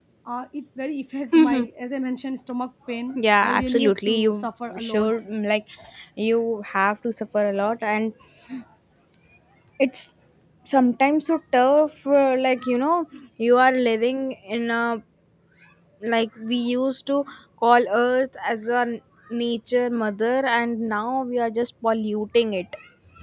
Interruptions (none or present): present